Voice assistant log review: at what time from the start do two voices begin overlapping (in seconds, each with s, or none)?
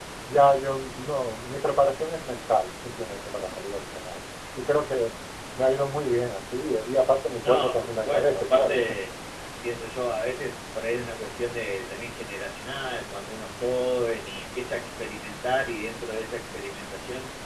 7.4 s